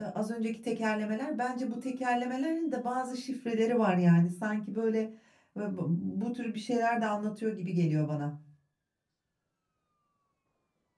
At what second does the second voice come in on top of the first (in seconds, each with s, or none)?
none